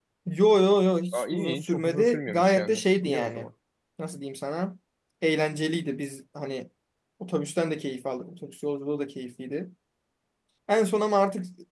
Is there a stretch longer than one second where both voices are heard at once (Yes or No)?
Yes